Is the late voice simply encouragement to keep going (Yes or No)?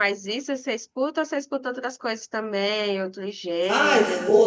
No